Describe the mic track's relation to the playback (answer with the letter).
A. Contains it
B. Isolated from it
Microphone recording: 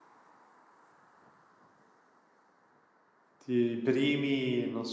B